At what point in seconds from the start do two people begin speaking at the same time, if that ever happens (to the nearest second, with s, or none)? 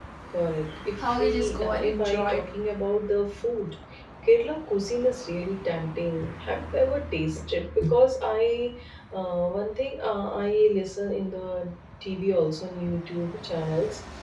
1 s